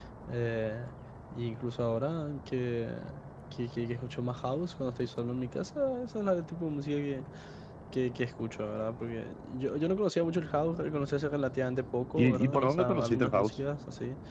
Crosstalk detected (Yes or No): Yes